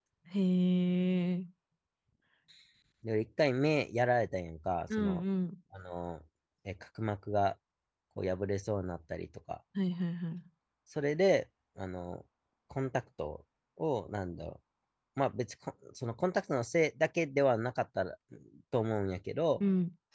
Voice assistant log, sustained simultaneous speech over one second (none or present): none